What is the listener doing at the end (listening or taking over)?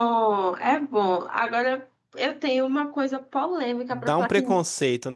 taking over